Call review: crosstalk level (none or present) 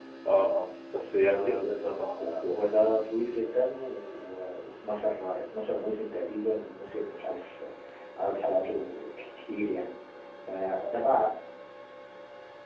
present